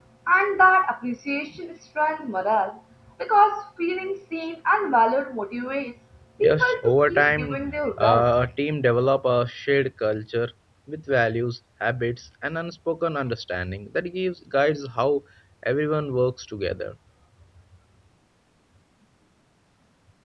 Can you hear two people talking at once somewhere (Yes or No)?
Yes